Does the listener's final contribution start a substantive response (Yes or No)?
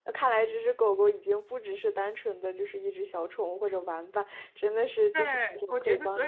Yes